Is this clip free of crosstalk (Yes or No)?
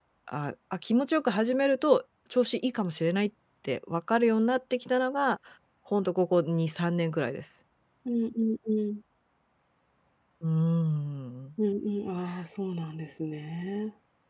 Yes